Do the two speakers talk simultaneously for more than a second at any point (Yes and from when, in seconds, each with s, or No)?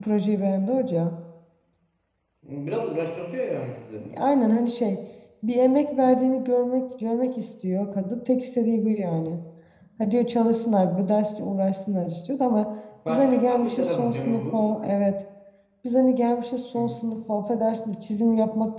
Yes, from 13.1 s